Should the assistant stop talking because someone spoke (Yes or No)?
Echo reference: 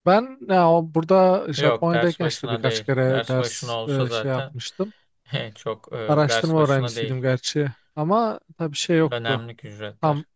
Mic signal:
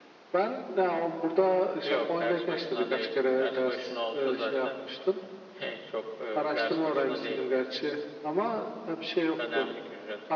No